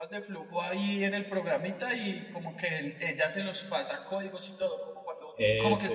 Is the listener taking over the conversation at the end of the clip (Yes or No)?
No